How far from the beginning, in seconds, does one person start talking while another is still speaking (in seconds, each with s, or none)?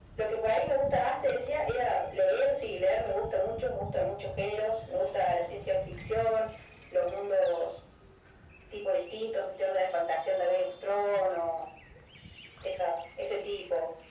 none